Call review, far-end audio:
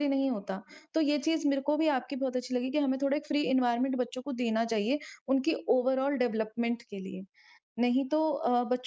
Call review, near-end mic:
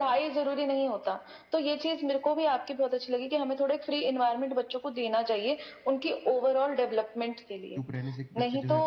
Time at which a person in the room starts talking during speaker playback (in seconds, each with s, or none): 7.7 s